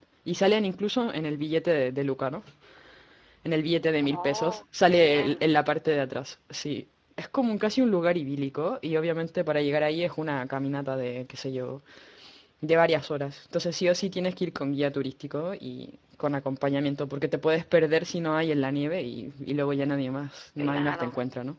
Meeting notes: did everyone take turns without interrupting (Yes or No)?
No